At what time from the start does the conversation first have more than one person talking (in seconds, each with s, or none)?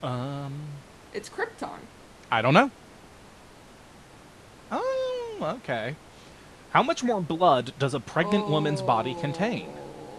8.2 s